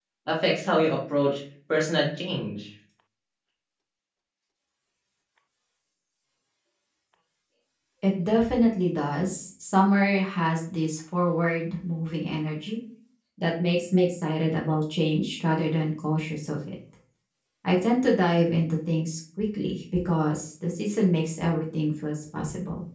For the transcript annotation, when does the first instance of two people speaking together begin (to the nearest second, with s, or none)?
none